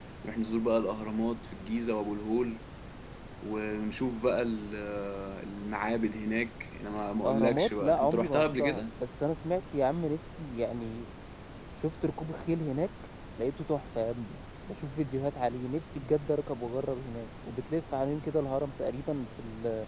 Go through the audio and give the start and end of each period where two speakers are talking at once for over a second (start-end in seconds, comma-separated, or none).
7.2-8.9